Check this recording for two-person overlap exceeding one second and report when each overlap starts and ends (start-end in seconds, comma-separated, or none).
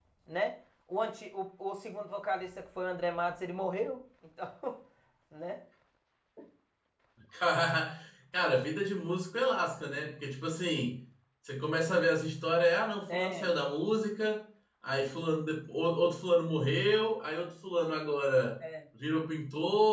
none